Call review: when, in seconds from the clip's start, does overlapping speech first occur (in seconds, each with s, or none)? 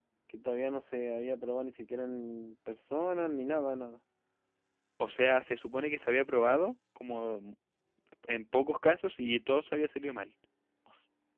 none